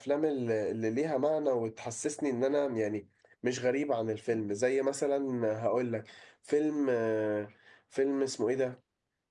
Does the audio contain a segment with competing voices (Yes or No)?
No